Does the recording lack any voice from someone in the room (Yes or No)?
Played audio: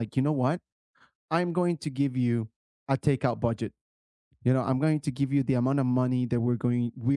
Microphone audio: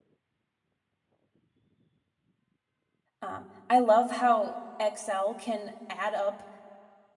No